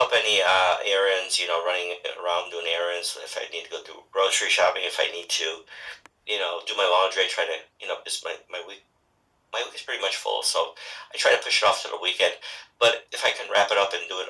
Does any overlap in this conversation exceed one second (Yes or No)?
No